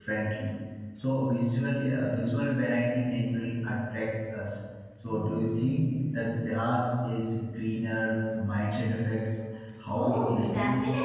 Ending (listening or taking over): taking over